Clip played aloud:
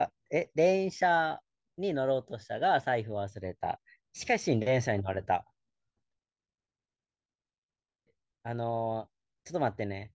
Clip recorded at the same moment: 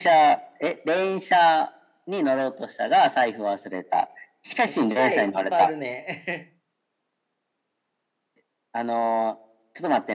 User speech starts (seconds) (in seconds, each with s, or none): 4.7 s